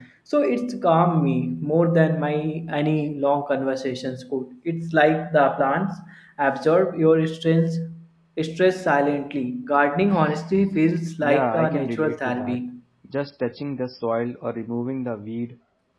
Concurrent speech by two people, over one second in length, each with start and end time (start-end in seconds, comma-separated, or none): 11.2-12.6